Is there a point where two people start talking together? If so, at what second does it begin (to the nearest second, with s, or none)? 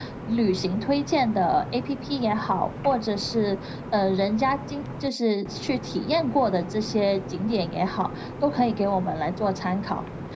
none